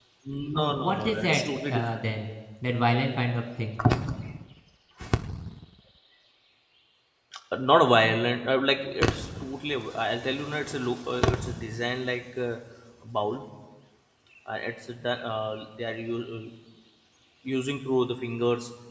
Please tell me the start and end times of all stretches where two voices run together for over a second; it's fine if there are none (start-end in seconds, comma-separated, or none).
0.5-1.8